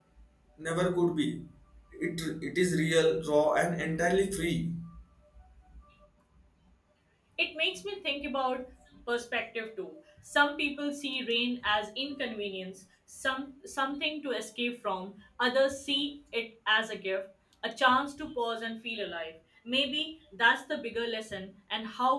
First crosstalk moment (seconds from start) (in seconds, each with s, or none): none